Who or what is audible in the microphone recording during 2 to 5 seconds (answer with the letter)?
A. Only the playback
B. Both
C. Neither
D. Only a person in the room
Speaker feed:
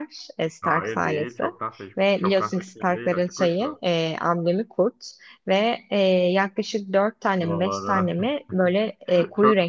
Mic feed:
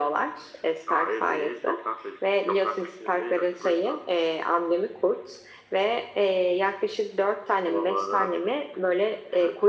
A